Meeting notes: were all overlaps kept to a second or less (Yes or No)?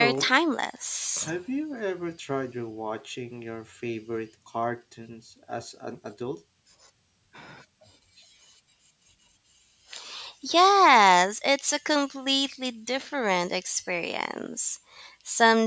Yes